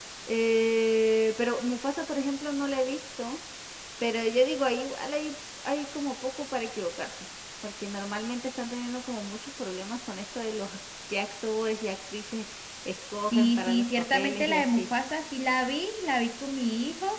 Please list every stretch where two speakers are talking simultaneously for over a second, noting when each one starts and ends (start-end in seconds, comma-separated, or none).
13.3-14.9